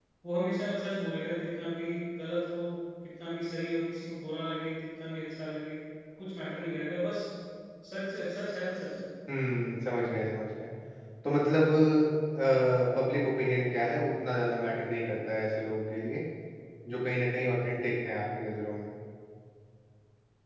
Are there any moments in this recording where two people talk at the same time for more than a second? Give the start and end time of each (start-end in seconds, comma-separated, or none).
none